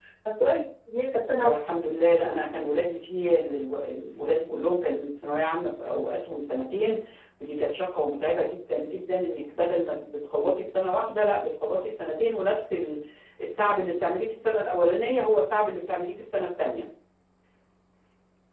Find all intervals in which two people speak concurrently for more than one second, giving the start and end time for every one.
none

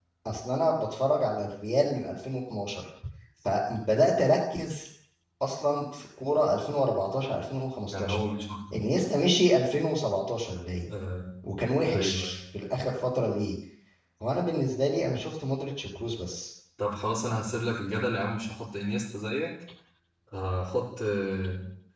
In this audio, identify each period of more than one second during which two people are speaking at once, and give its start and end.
none

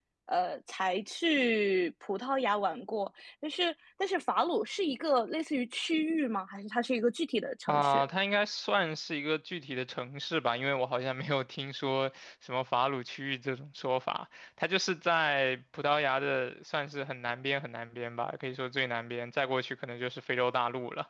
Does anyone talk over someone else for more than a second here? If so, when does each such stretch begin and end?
none

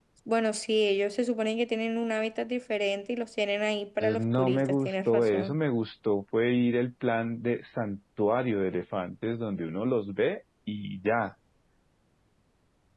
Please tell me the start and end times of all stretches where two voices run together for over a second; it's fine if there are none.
4.0-5.6

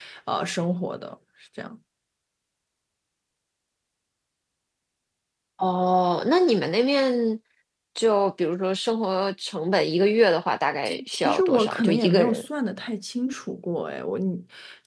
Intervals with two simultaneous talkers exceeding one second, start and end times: 10.8-12.4

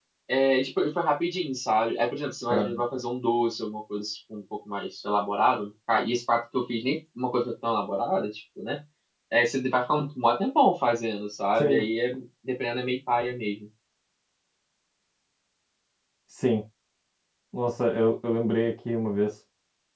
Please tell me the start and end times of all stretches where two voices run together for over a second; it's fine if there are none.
none

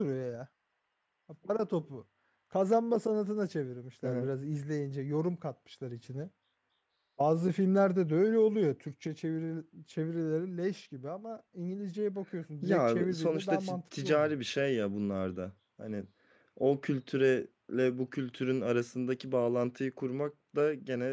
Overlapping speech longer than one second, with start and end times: 12.6-14.3

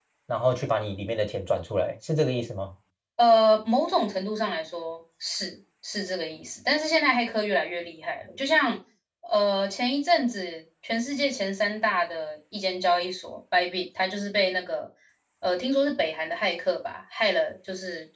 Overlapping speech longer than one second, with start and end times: none

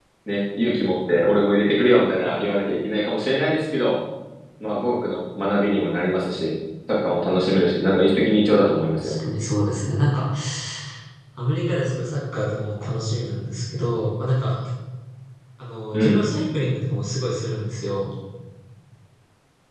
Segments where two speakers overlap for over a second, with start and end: none

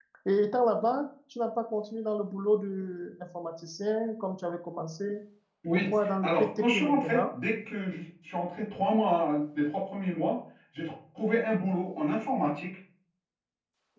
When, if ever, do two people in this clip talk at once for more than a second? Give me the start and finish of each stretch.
5.8-7.2

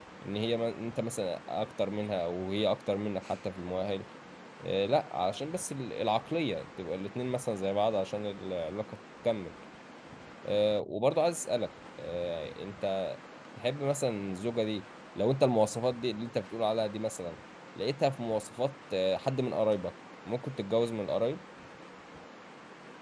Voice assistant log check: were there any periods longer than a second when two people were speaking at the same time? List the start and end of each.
none

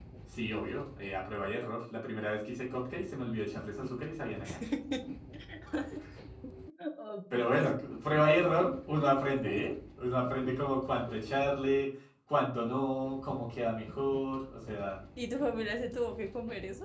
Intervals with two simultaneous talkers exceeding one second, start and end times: none

